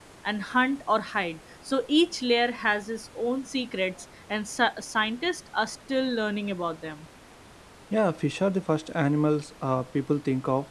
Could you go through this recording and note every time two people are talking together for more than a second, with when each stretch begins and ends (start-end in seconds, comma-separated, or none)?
none